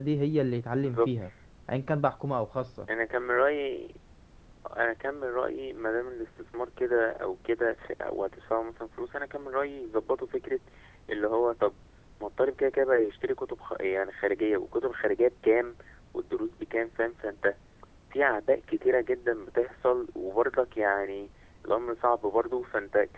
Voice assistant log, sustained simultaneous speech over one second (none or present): none